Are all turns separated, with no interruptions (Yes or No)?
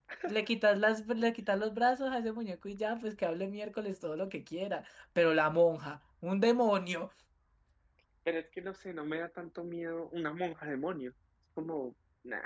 Yes